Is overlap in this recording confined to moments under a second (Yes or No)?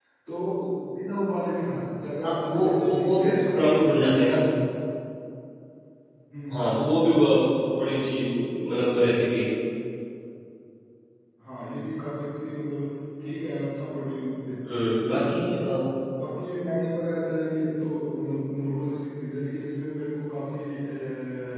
No